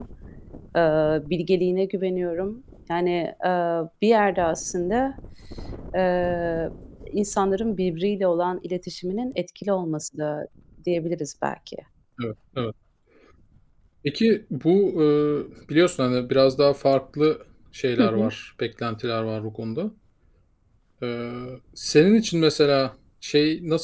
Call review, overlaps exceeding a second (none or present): none